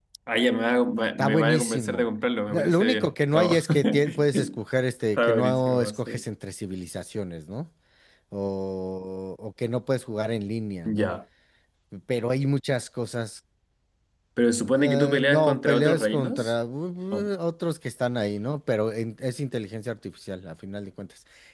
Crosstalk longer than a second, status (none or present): present